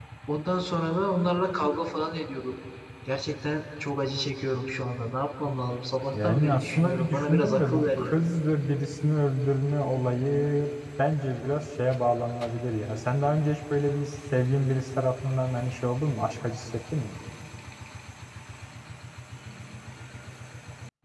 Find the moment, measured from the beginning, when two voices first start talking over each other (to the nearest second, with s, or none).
6 s